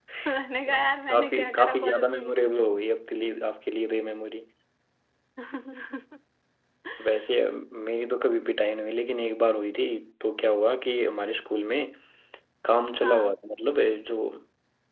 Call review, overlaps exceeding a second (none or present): present